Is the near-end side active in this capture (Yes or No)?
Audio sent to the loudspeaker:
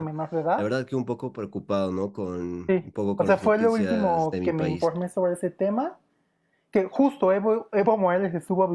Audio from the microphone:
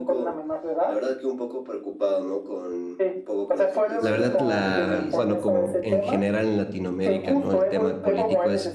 Yes